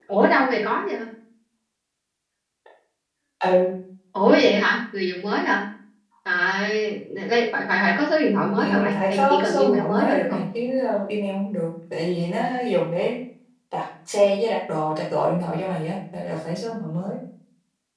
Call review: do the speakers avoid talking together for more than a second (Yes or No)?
No